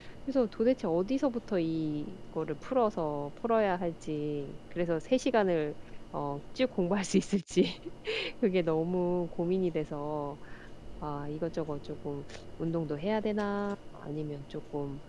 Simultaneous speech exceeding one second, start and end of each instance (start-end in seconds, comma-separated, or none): none